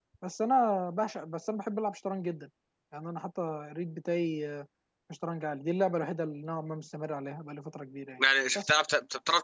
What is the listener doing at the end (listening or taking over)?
taking over